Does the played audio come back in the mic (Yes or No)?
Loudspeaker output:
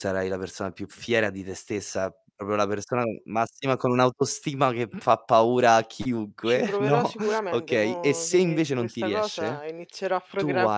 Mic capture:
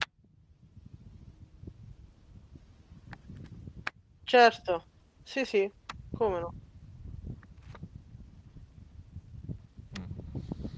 No